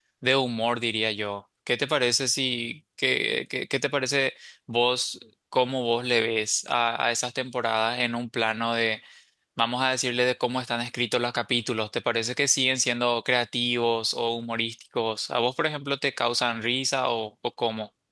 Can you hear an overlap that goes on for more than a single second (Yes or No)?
No